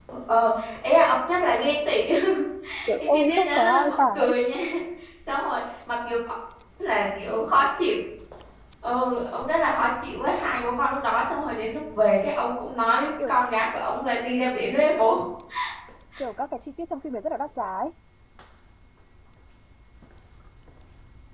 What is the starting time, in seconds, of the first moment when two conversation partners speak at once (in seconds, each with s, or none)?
3.0 s